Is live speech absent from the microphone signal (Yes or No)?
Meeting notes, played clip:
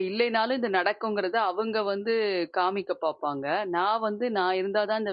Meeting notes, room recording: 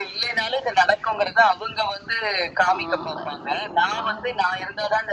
No